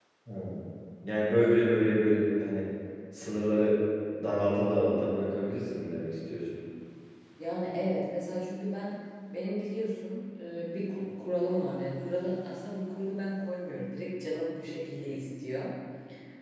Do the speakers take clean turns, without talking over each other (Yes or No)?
Yes